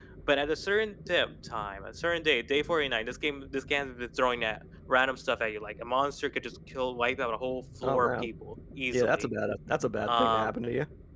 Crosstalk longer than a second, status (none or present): none